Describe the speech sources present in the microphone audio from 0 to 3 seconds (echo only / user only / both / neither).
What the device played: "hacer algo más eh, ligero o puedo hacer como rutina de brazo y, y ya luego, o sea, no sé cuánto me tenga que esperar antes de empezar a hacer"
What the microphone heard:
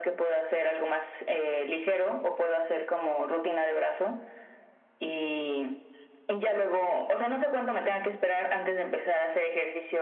echo only